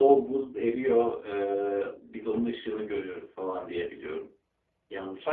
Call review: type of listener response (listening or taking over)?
taking over